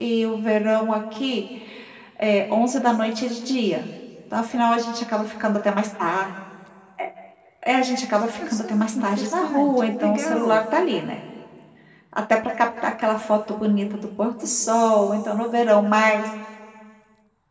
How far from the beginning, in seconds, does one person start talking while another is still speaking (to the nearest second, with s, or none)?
8 s